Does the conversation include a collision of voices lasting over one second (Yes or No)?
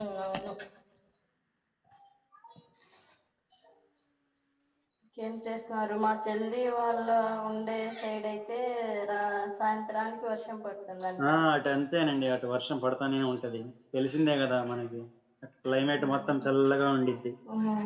No